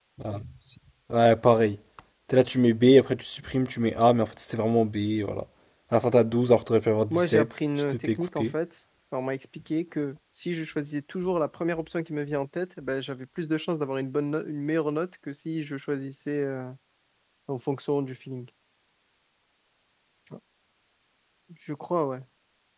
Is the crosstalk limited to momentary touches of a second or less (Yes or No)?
No